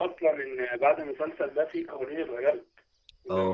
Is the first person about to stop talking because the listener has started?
Yes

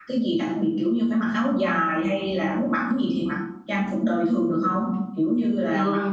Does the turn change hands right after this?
No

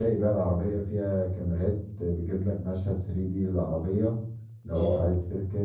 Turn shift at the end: No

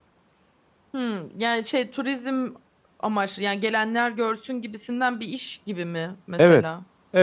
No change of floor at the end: No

